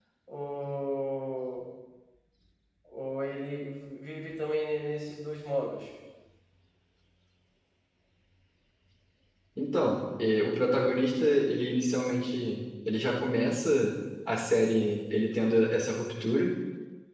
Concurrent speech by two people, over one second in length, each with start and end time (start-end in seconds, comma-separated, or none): none